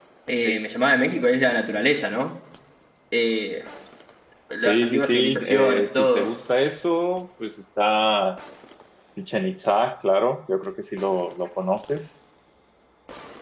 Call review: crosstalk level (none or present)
present